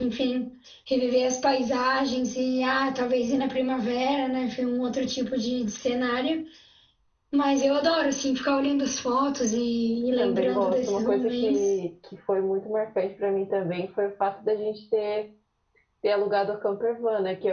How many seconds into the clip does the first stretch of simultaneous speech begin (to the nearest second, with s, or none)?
10 s